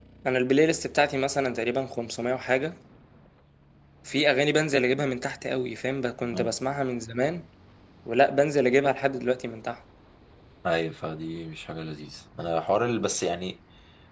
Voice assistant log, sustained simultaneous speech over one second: none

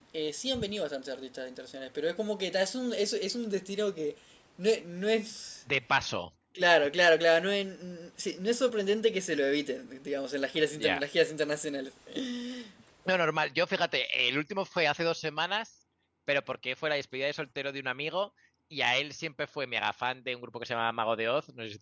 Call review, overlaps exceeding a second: none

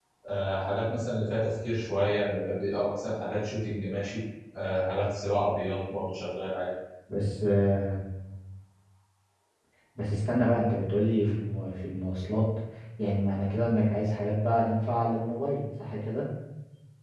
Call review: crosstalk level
none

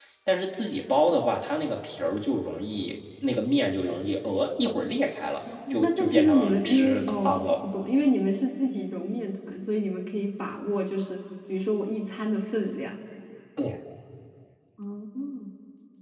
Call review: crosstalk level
present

